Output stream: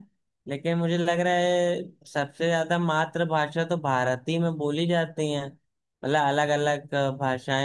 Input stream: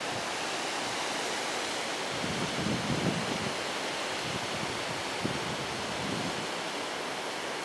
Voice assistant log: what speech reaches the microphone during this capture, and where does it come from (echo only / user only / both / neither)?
neither